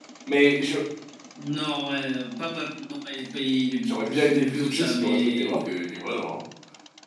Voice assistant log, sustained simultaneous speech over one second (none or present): present